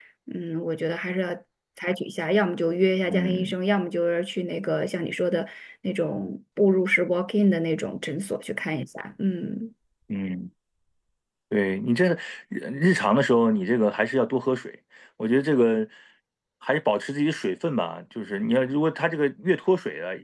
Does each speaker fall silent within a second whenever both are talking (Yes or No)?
Yes